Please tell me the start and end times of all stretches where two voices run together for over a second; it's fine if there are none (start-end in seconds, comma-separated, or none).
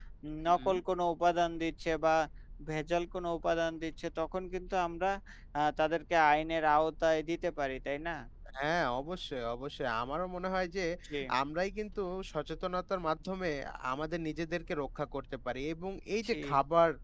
none